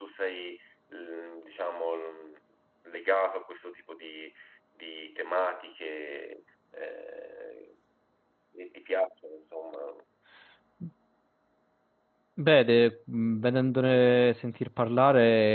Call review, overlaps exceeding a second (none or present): none